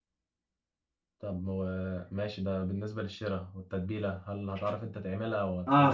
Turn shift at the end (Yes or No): Yes